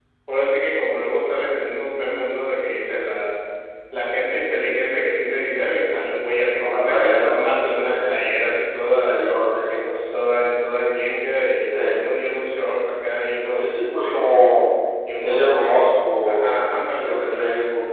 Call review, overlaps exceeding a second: present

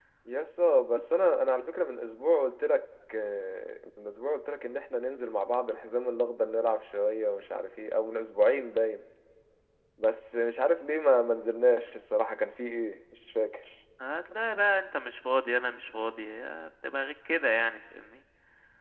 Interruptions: none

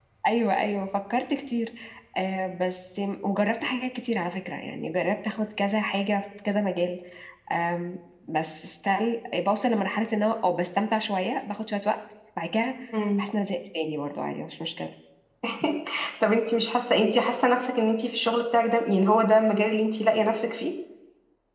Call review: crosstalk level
none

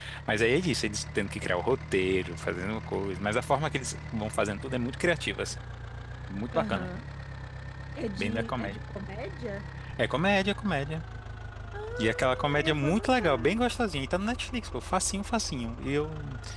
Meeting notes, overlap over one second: present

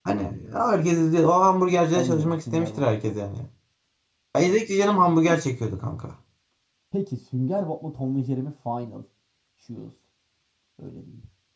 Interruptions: present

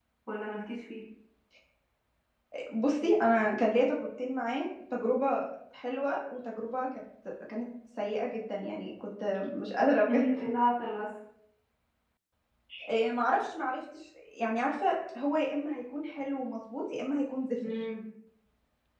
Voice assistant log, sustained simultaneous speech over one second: none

